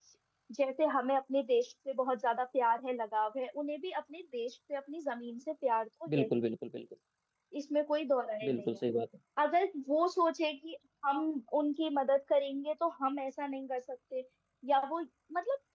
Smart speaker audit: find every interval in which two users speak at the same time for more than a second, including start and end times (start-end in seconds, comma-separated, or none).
none